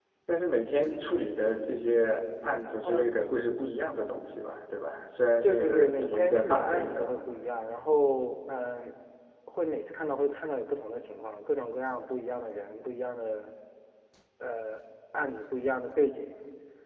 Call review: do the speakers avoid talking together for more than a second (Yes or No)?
No